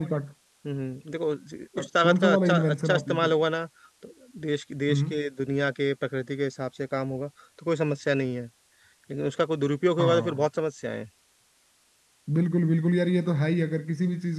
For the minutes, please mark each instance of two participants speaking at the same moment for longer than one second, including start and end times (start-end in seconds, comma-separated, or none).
2.0-3.3